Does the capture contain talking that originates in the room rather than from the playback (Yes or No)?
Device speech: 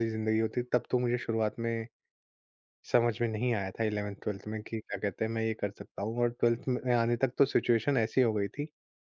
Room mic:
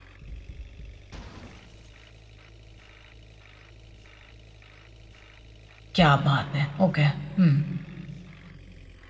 Yes